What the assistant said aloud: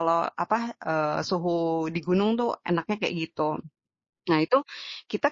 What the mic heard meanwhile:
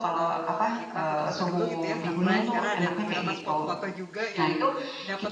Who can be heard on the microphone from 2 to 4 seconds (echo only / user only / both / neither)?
both